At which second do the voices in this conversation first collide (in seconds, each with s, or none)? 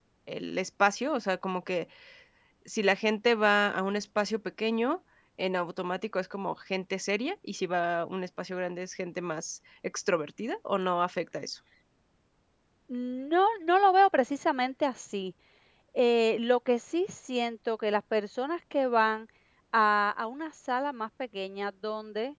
none